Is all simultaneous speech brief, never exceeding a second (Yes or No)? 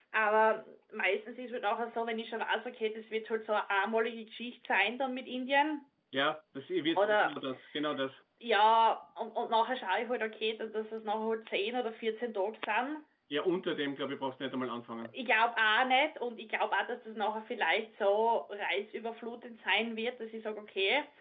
Yes